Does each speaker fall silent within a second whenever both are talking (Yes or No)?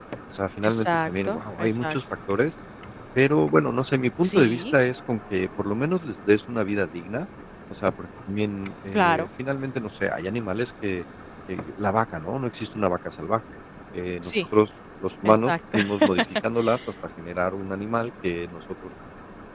No